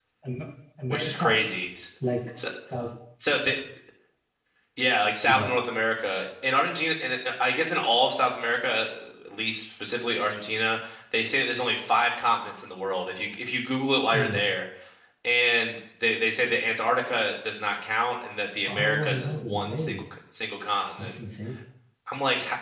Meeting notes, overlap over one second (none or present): present